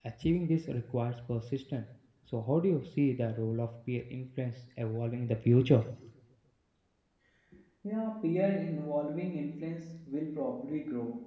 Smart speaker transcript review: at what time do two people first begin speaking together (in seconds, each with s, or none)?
none